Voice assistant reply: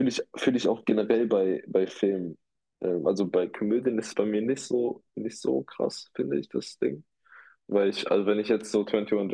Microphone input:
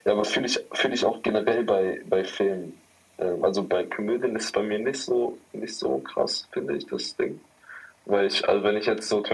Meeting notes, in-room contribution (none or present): none